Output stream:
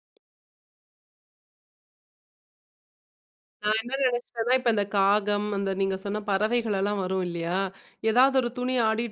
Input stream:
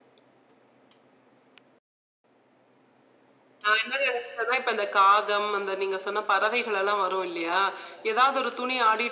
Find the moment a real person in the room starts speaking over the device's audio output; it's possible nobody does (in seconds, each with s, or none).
none